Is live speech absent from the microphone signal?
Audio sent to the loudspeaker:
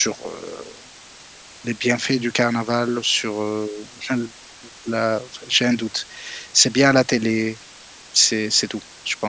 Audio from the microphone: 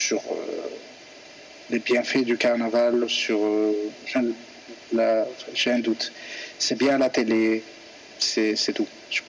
Yes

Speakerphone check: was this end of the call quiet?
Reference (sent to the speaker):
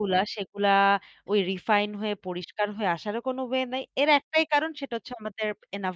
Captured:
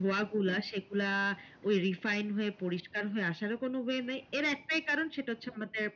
Yes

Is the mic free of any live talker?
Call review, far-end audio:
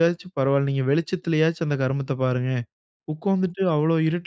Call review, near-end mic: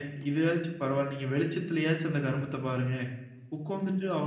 Yes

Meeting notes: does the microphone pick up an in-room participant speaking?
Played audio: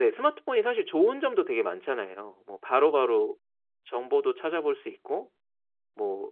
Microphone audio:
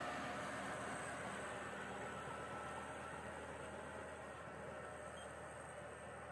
No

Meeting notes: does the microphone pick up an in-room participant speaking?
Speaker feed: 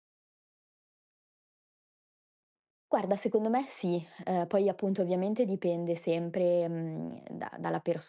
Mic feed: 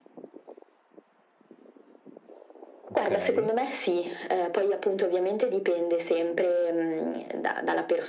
Yes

